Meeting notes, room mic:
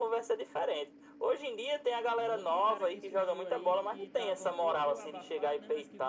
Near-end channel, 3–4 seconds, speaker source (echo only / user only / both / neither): both